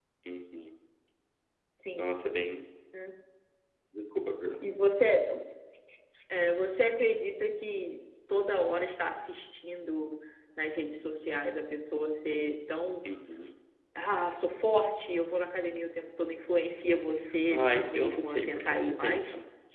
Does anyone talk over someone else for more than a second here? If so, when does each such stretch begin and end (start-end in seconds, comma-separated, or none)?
17.5-19.2